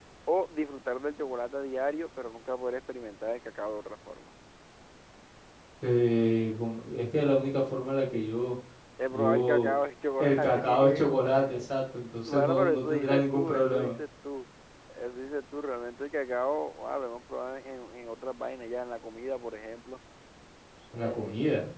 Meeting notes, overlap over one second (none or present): present